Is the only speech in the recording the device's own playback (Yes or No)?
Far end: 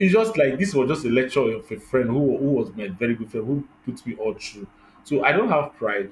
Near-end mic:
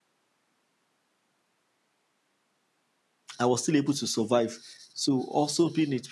No